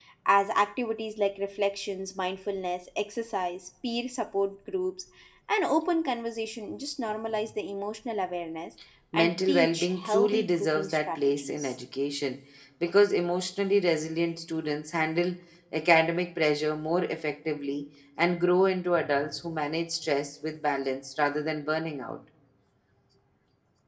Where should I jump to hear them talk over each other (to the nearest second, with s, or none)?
9 s